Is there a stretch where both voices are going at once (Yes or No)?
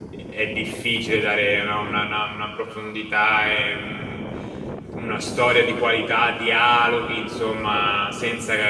No